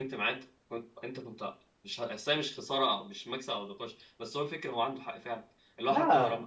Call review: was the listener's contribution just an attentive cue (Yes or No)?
Yes